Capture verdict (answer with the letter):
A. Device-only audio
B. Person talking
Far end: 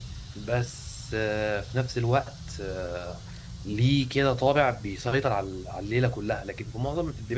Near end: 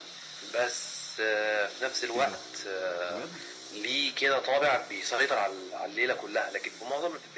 B